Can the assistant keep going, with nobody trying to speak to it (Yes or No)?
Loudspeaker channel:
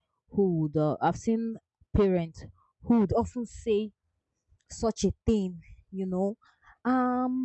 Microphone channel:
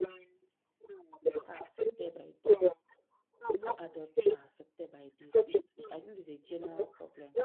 No